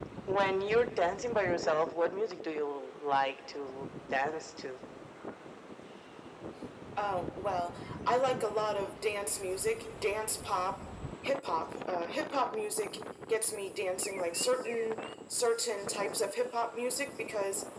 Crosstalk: none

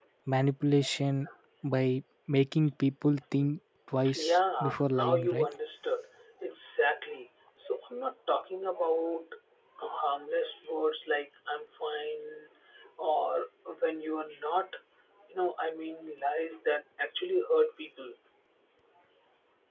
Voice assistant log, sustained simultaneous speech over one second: present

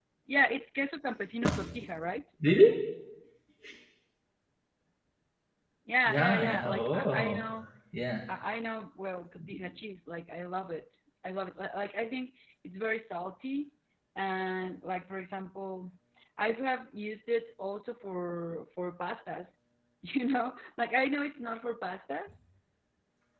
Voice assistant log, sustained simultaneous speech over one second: present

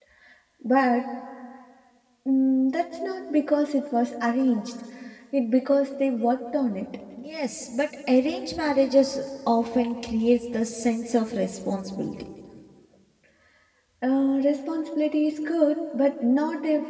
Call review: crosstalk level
none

